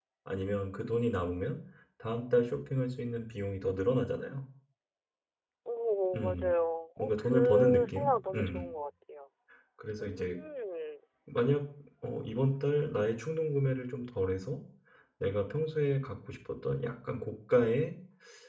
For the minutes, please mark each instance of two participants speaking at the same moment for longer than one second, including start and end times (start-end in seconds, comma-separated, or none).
7.0-8.7